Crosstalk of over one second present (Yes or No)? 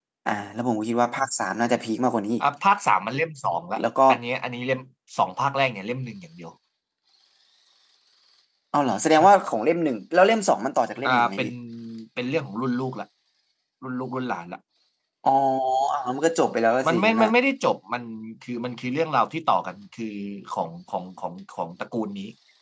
No